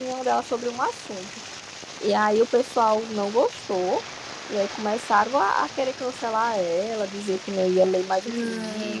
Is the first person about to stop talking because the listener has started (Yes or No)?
No